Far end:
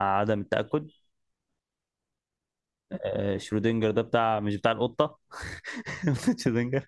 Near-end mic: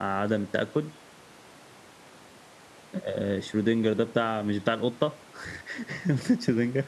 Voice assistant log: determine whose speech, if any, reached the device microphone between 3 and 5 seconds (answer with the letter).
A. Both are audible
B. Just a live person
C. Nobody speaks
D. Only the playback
D